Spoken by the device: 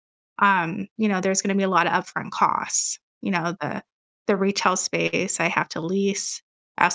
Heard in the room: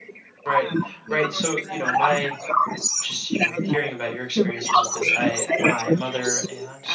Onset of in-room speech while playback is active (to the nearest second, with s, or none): 0 s